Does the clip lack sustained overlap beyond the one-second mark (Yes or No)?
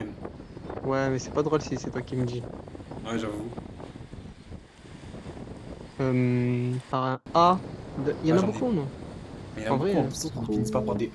No